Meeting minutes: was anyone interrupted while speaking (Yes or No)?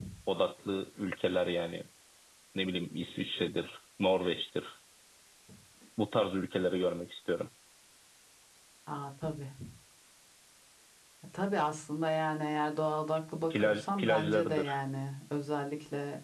Yes